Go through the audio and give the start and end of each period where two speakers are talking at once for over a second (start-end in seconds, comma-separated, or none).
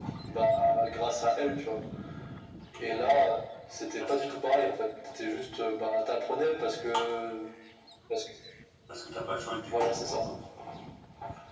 none